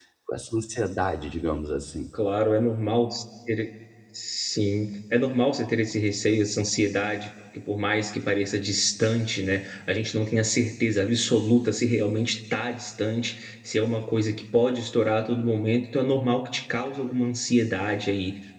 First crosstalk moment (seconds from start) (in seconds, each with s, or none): none